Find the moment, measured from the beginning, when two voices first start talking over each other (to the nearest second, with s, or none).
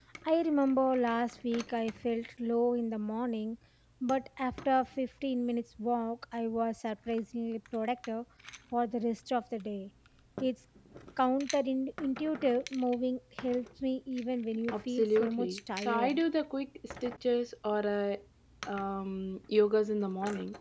15 s